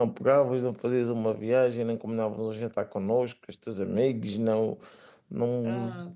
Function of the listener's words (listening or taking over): taking over